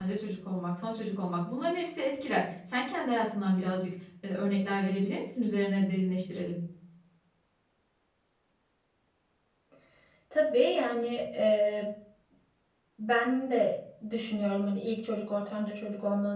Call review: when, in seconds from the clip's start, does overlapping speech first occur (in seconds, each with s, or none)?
none